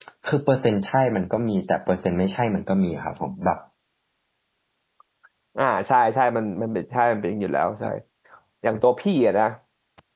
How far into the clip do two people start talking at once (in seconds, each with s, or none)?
none